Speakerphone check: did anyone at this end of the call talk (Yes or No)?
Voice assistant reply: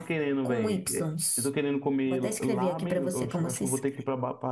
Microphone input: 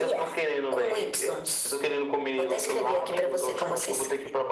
No